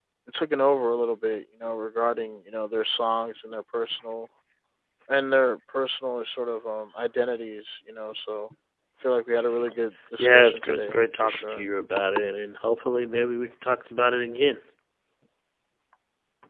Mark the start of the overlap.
10.2 s

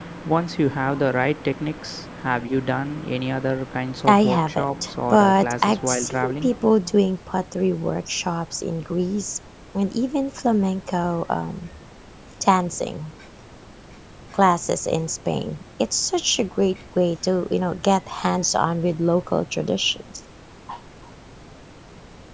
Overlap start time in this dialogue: 4.1 s

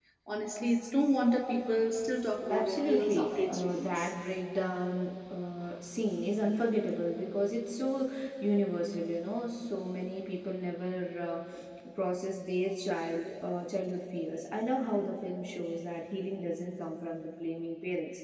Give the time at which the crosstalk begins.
2.5 s

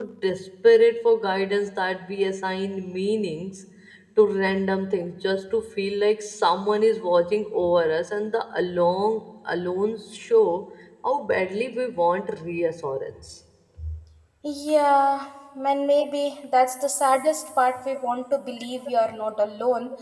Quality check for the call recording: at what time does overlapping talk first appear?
none

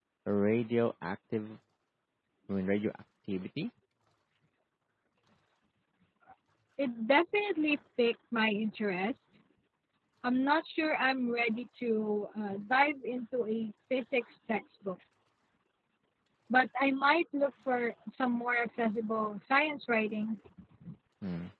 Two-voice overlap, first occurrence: none

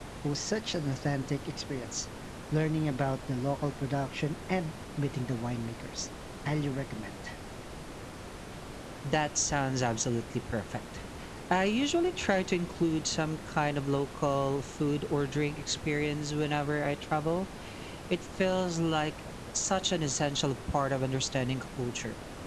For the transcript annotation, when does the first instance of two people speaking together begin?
none

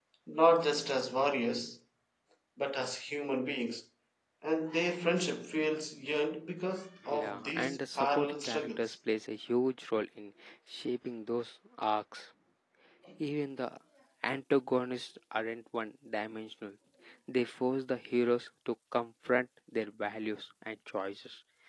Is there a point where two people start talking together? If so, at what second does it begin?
7.0 s

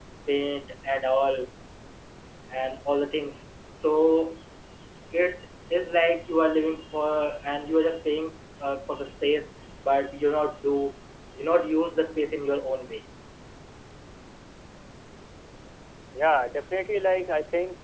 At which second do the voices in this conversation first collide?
none

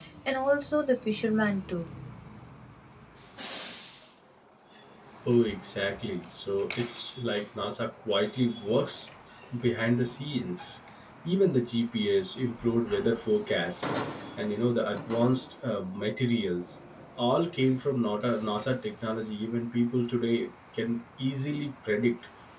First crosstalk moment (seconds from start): none

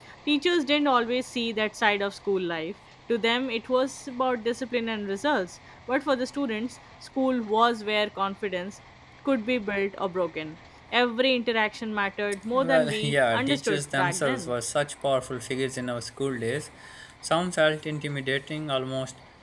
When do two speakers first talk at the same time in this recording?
12.5 s

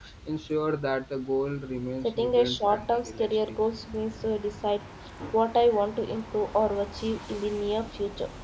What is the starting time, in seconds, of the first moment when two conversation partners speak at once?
2.0 s

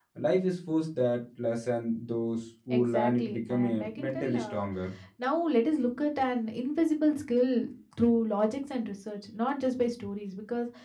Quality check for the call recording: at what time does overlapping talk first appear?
2.7 s

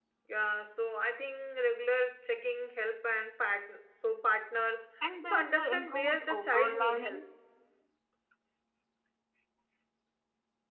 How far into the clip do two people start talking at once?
5.3 s

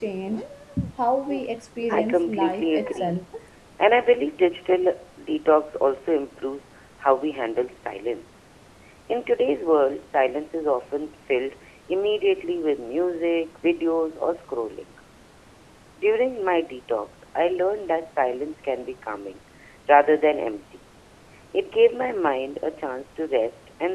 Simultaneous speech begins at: 1.9 s

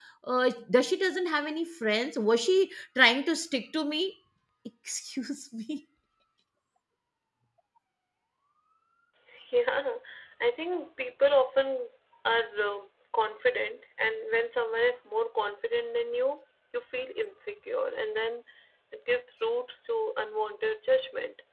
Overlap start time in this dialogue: none

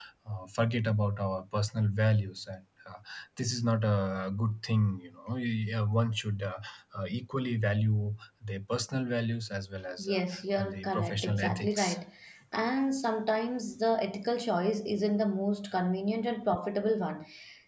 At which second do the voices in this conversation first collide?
10.0 s

